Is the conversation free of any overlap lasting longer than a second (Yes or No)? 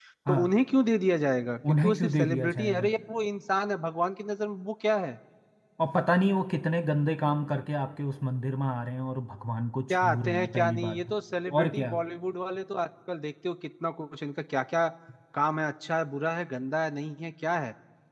No